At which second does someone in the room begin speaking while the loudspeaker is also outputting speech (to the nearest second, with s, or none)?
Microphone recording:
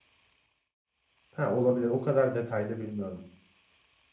1 s